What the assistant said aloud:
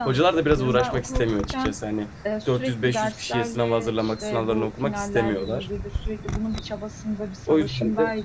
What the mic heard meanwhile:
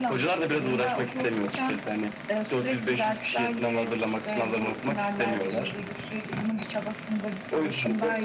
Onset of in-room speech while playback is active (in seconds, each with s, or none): none